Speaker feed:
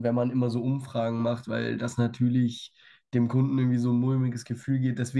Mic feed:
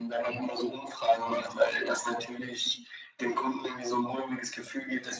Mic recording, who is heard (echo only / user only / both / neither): echo only